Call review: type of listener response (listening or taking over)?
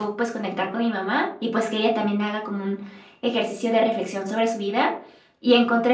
listening